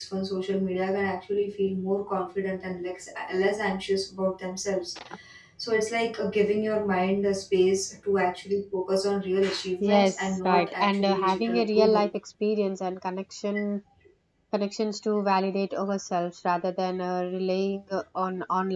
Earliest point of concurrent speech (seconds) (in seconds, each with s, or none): 9.8 s